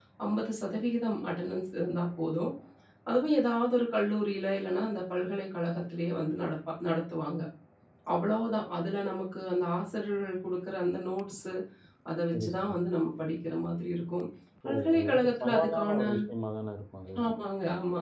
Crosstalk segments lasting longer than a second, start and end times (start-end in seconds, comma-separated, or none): 14.7-16.0